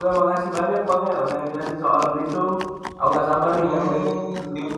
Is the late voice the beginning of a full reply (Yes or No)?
Yes